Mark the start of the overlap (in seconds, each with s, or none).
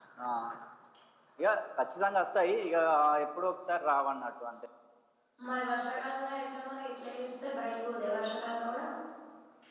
none